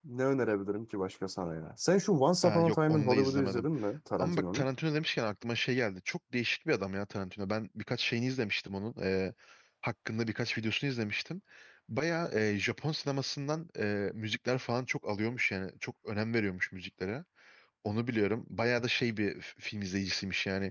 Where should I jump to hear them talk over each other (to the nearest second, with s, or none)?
2 s